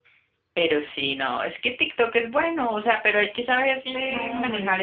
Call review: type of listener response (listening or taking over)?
taking over